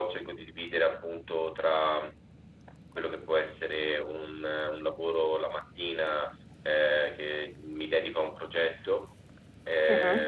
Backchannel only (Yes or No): Yes